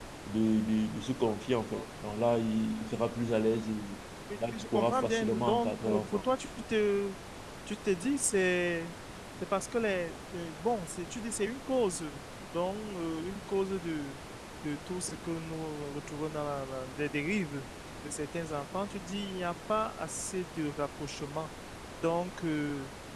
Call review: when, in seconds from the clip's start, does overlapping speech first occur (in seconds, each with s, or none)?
4.5 s